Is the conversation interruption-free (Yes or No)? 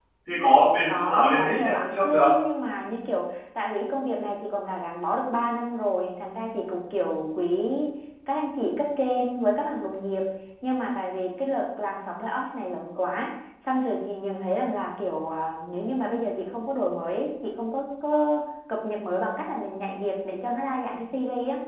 No